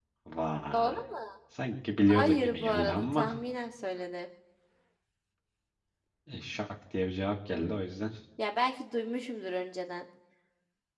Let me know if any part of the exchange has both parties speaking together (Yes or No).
Yes